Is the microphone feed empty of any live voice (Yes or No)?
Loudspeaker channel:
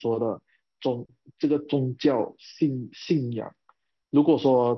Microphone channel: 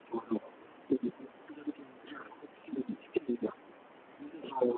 Yes